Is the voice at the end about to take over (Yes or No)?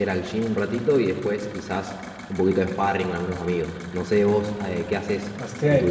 Yes